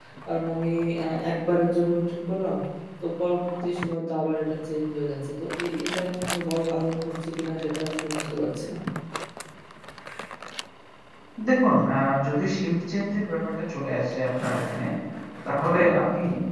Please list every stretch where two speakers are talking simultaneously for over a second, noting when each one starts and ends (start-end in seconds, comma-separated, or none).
none